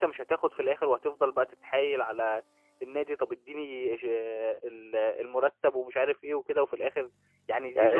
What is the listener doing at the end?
taking over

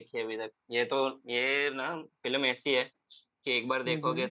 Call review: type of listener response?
listening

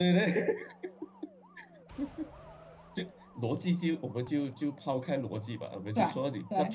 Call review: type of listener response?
listening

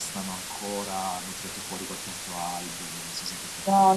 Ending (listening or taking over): taking over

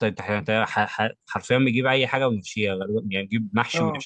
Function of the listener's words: taking over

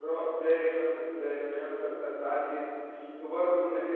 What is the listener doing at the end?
listening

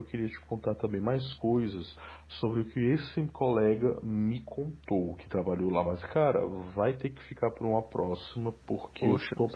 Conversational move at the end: listening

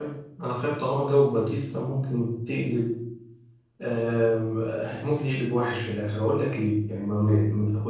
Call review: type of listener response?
listening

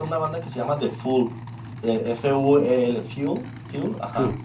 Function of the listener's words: listening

